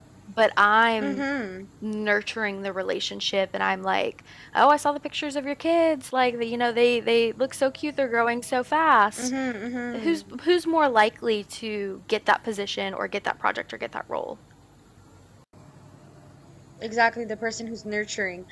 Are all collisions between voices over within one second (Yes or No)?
Yes